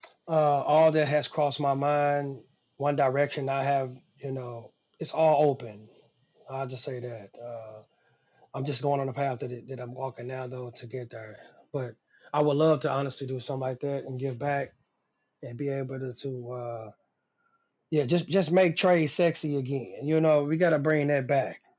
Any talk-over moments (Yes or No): No